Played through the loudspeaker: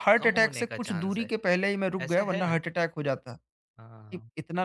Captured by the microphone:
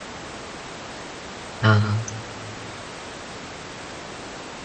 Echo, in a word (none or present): none